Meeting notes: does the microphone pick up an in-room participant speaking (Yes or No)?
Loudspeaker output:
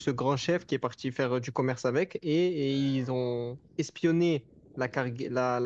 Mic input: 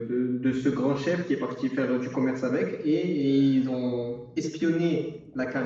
No